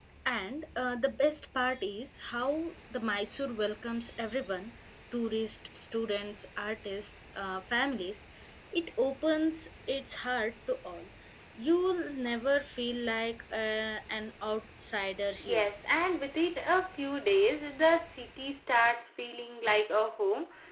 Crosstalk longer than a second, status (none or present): none